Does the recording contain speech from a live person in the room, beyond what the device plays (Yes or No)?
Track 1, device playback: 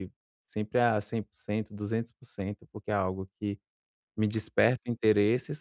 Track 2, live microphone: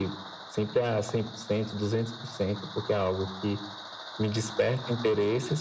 No